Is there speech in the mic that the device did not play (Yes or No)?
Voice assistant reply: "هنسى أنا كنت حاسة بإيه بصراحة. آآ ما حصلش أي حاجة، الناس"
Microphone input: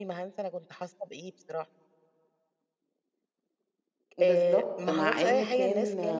Yes